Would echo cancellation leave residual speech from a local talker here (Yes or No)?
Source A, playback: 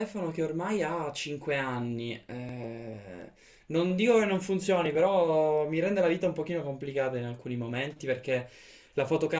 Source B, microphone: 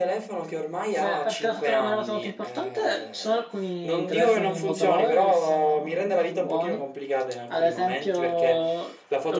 Yes